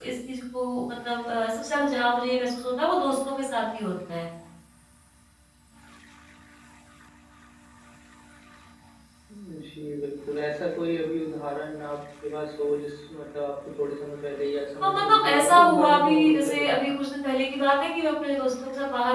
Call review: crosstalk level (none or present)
present